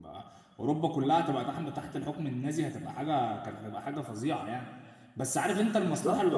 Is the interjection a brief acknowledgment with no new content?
Yes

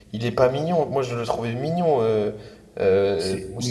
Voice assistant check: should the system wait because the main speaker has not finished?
No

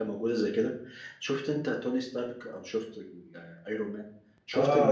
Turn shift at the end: Yes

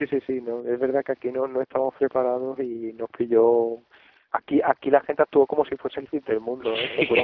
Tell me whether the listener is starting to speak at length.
No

